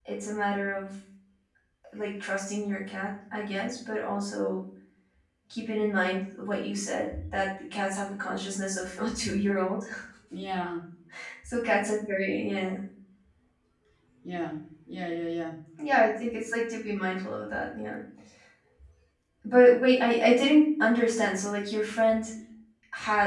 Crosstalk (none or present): none